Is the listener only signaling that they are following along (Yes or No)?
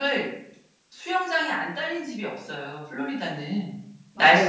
No